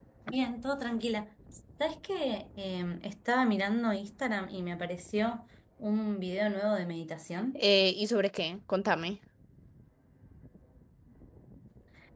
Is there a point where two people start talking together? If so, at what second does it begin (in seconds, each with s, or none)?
none